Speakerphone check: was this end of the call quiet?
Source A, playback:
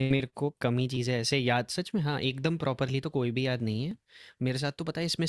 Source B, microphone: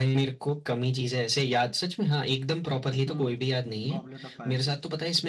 No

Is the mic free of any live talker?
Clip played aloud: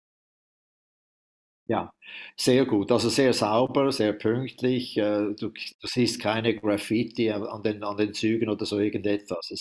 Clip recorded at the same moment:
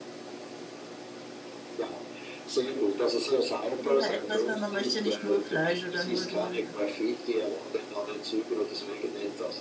No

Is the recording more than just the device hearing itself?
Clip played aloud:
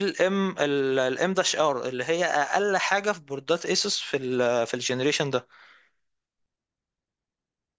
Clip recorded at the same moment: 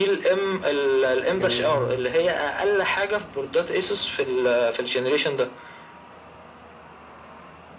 Yes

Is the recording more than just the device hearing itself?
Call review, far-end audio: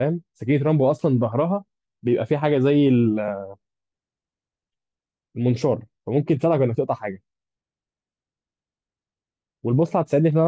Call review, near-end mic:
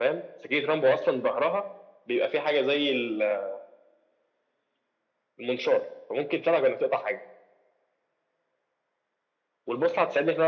No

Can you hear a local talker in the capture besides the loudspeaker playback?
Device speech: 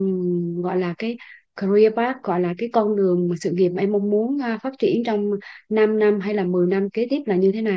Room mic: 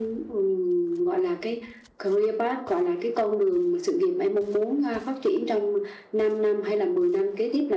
No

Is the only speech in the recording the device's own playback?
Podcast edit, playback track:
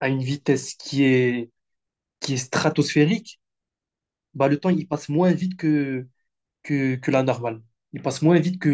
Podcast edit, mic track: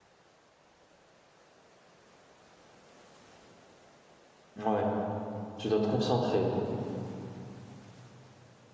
No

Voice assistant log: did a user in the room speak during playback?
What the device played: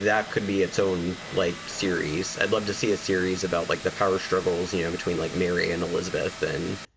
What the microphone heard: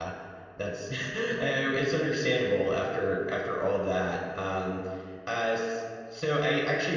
Yes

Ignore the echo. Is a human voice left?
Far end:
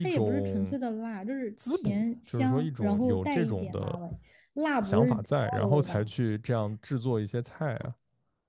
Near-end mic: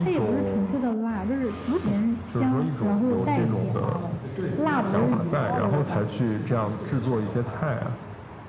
Yes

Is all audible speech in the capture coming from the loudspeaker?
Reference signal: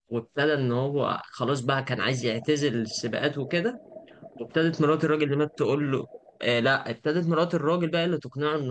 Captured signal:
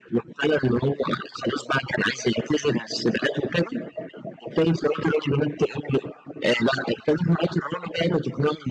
Yes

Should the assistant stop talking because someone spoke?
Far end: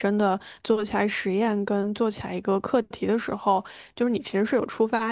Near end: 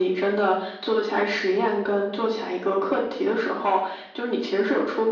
No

